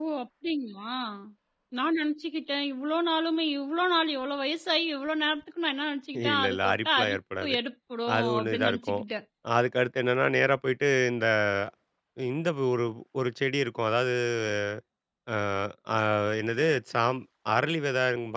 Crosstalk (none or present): present